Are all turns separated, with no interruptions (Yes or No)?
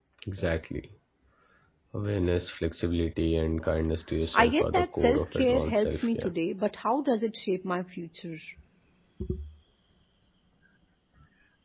No